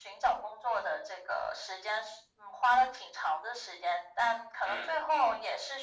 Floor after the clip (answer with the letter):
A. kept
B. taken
A